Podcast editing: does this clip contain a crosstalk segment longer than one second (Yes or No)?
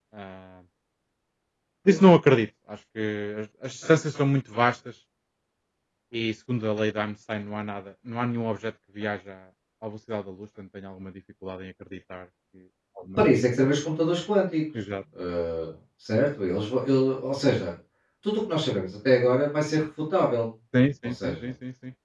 No